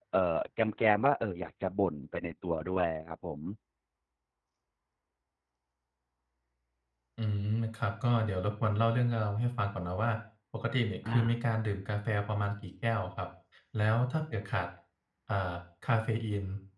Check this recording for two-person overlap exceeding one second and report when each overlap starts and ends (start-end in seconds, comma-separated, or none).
none